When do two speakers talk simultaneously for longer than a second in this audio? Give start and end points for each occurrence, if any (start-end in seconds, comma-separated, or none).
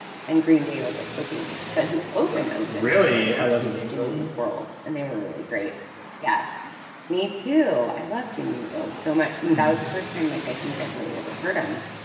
2.7-4.3